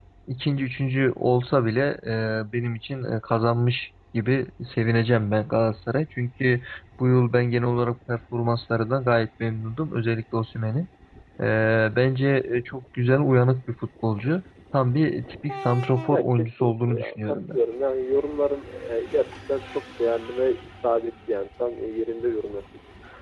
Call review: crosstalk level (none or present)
present